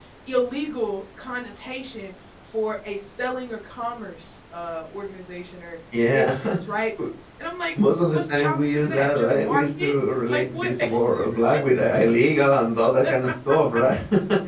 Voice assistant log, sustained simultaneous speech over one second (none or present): present